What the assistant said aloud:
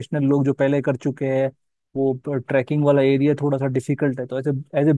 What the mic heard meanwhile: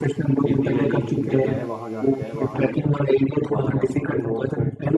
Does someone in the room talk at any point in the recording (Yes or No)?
Yes